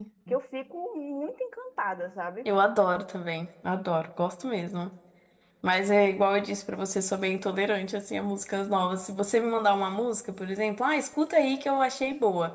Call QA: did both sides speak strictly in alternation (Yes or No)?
Yes